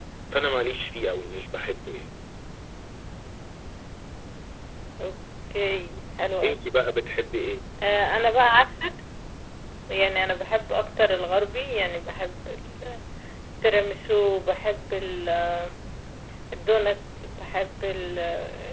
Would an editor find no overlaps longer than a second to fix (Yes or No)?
Yes